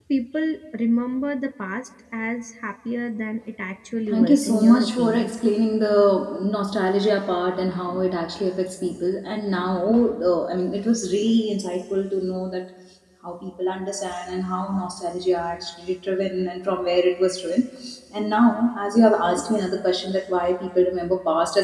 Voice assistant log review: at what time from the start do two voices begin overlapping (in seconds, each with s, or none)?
4.1 s